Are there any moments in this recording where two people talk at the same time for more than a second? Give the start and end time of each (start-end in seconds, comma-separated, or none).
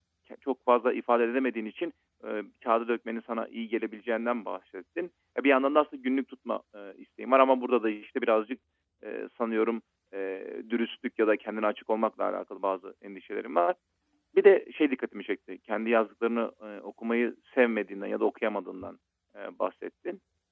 none